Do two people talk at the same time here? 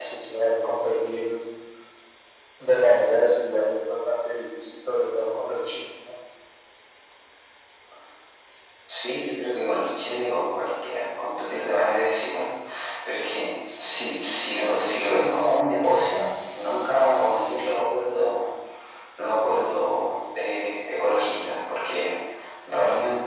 No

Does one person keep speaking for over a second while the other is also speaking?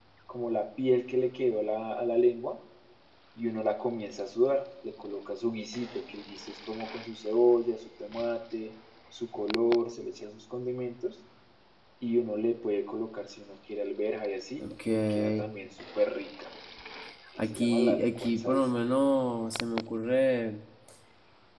Yes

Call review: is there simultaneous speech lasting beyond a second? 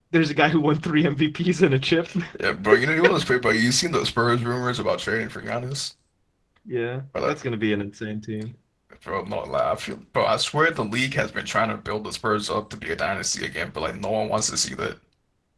No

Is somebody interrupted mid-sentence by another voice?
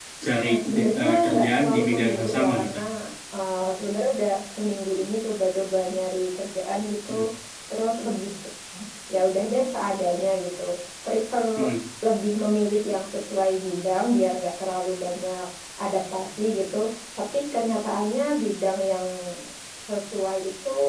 Yes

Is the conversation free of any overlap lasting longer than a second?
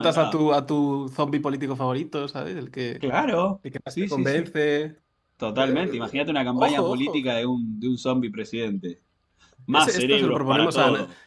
No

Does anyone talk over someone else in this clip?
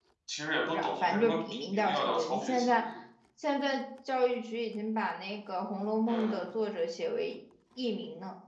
Yes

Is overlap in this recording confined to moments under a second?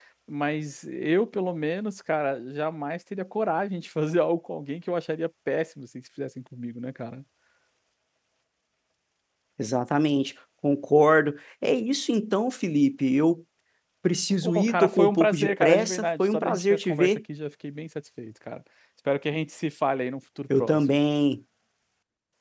No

